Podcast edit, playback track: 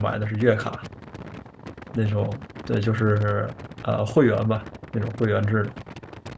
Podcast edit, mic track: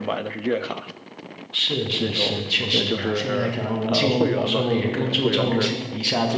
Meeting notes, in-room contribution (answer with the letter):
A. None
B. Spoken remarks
B